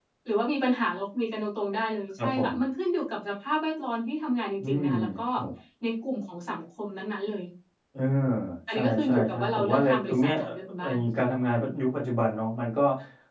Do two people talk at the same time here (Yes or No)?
Yes